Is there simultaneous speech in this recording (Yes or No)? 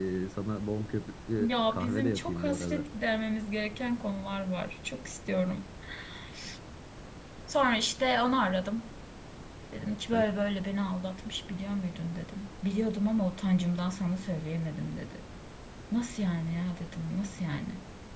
Yes